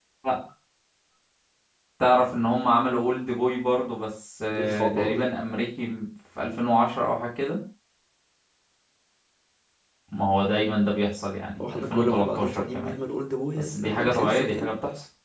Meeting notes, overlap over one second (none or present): present